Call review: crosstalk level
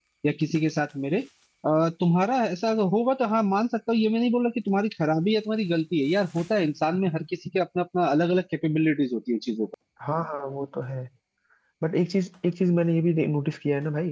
none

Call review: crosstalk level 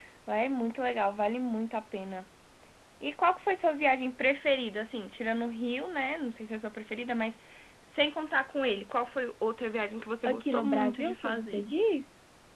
present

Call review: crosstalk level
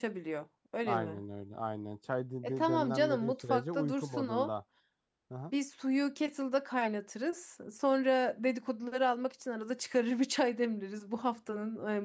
present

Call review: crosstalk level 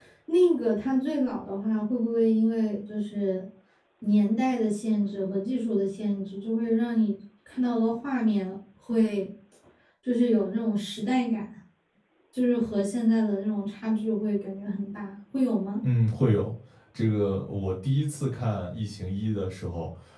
none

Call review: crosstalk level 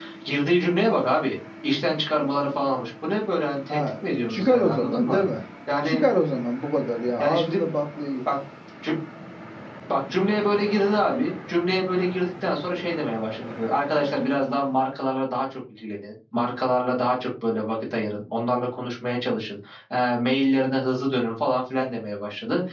present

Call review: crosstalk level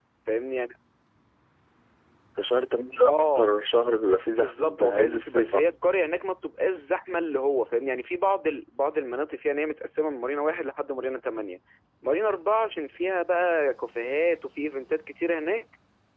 present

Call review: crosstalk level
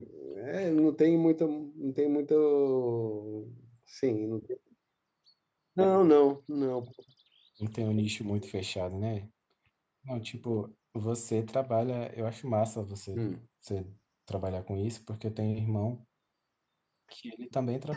none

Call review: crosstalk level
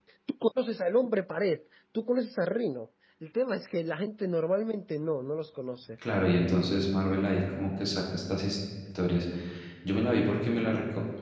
none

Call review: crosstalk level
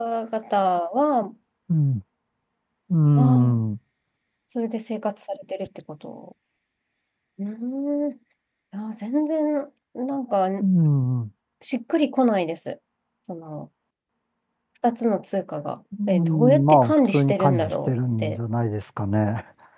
present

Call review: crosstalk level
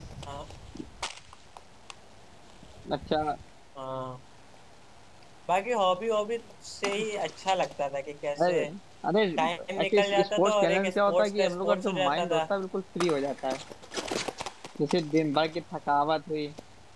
present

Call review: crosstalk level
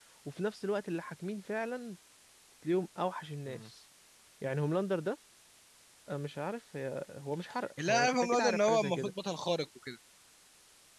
present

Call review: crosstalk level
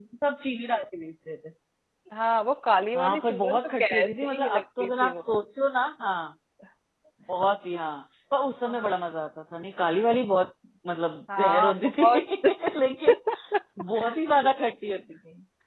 present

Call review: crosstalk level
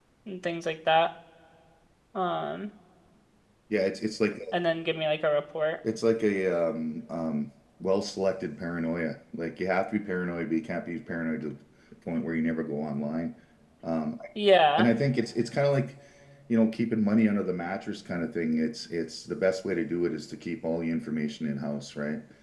none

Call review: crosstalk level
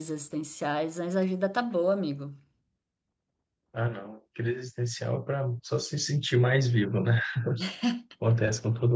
none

